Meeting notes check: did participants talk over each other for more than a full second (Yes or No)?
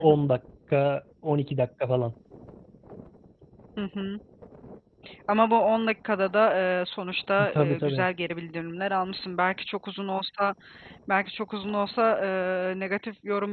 No